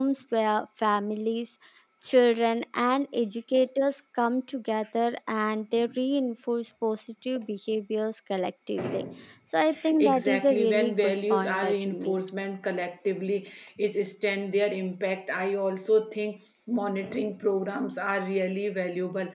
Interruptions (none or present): present